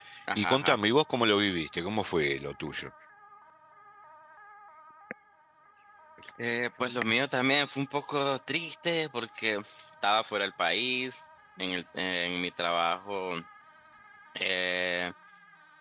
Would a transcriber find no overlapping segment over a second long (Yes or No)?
Yes